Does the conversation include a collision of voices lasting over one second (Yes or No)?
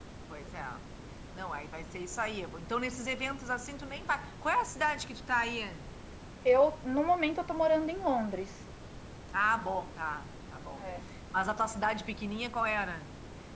No